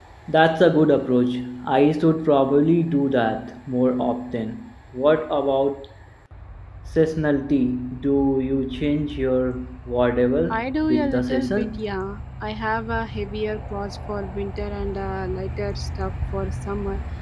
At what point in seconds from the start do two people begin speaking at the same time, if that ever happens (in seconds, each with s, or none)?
10.5 s